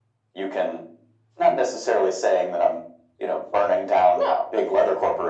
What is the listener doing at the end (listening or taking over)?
listening